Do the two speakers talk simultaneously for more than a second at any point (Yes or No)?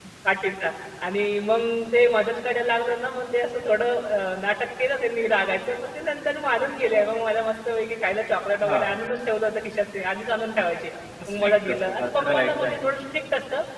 Yes